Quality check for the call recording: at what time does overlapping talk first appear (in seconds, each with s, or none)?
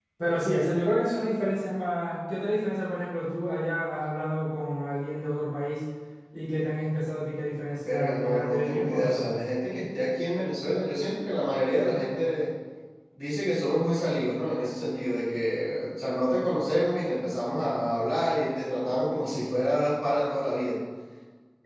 7.9 s